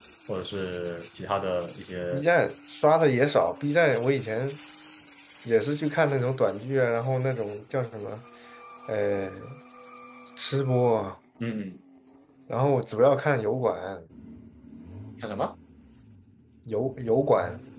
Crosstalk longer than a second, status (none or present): none